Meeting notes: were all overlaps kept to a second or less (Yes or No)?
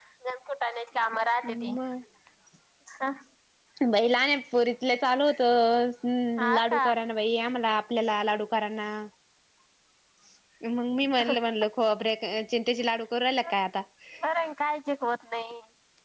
Yes